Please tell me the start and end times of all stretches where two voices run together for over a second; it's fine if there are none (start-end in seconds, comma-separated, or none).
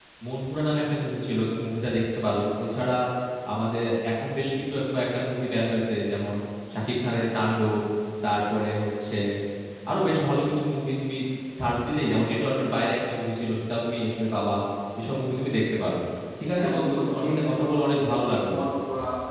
16.6-17.9